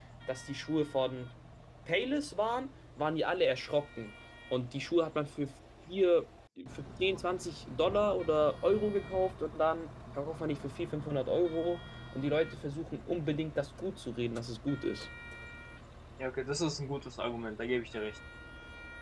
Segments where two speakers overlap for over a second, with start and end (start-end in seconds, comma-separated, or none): none